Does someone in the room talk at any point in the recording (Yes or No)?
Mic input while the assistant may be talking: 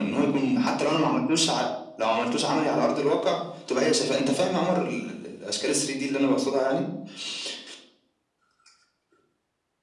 No